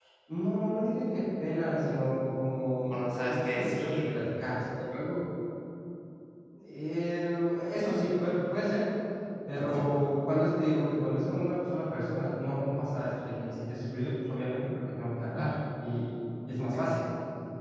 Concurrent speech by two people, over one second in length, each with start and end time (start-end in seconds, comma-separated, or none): 2.9-4.2